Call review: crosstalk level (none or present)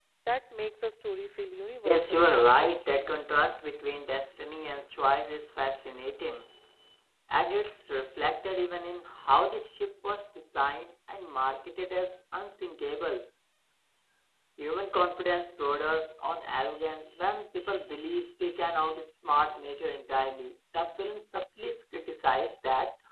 present